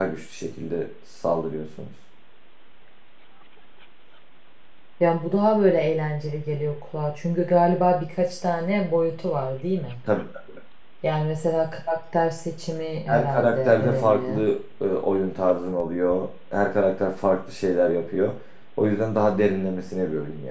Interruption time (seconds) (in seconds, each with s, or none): 13.1 s